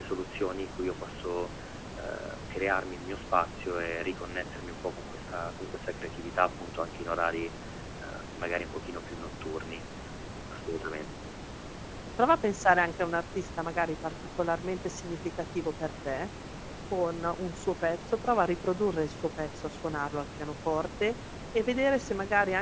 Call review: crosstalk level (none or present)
none